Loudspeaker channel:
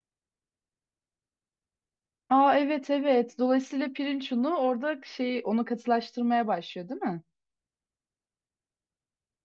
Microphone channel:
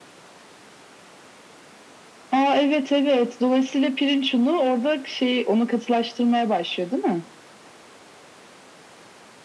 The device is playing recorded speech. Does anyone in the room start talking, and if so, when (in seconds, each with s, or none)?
none